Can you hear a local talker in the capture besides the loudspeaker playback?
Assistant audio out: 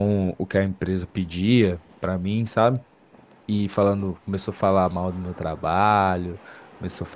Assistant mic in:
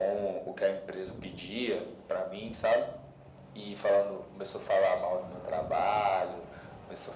No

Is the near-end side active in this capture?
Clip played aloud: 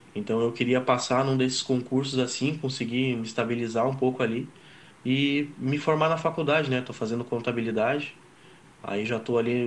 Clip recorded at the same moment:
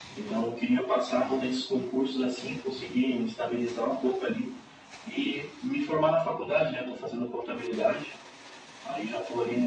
No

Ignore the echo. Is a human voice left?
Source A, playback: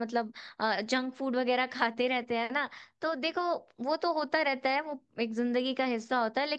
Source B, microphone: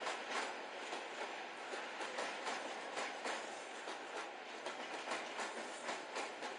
No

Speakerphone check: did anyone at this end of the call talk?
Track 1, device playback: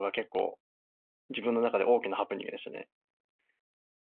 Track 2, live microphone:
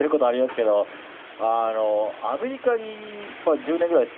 Yes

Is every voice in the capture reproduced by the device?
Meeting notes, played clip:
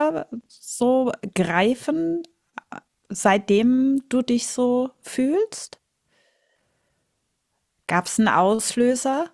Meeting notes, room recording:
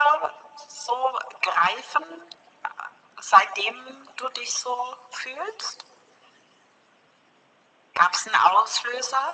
Yes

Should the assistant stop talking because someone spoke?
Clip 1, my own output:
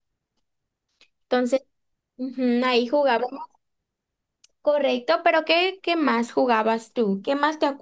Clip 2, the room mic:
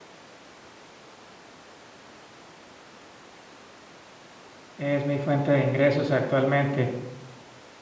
Yes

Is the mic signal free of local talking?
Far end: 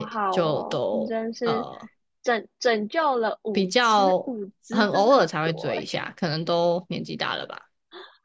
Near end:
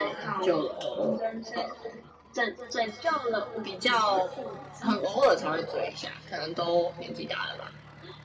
Yes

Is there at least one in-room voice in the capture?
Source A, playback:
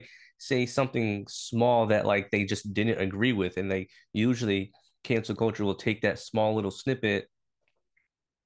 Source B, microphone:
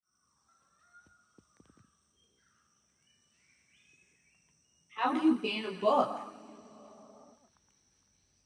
Yes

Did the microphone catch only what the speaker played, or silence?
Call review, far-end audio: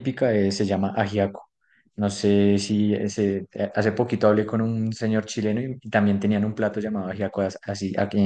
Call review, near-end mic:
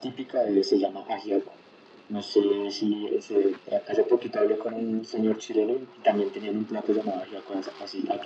Yes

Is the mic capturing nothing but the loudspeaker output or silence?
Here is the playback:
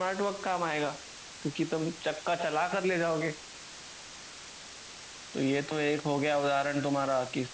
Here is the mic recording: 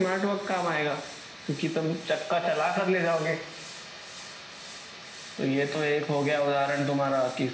Yes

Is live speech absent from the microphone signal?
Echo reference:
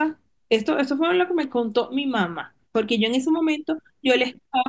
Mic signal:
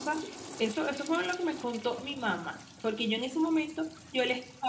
Yes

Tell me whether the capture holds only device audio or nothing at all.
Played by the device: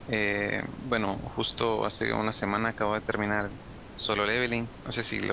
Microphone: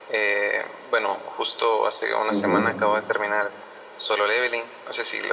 No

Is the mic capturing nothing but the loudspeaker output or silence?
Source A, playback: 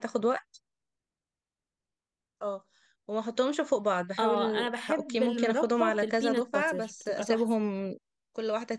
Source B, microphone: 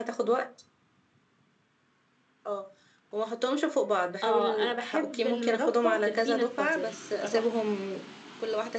Yes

